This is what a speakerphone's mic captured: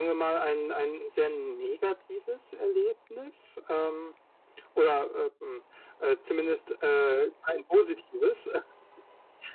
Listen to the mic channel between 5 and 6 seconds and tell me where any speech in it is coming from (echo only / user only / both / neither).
echo only